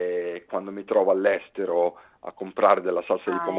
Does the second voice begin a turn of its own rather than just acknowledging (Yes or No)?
No